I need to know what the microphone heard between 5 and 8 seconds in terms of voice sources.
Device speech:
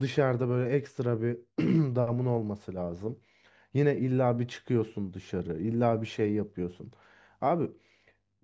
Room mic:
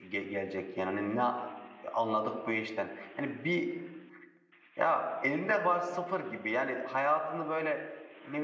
user only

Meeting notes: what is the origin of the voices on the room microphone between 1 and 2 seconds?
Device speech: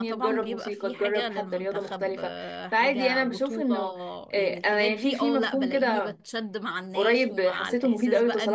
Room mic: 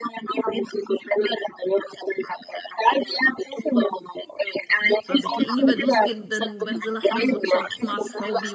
echo only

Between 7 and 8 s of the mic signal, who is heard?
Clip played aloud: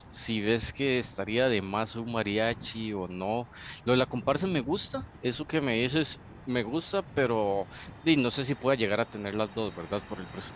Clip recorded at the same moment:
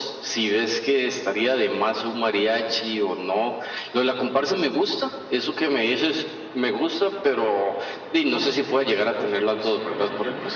echo only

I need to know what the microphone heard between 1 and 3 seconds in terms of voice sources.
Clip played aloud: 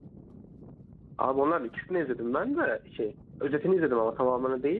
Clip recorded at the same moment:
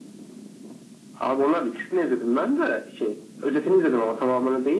echo only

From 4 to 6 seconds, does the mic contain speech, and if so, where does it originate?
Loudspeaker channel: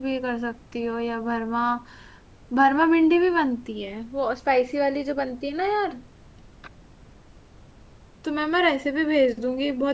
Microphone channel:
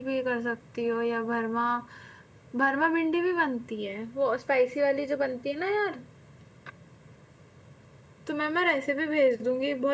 echo only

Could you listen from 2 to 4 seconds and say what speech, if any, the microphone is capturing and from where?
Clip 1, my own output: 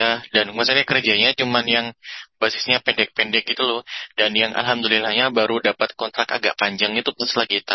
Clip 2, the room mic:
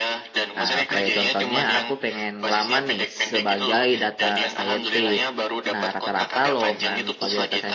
both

